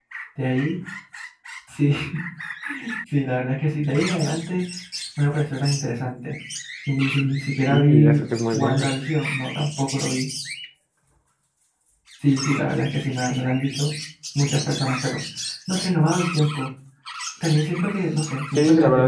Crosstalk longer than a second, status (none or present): present